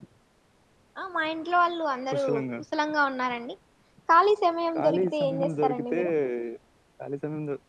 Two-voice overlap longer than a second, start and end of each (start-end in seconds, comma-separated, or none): 4.8-6.0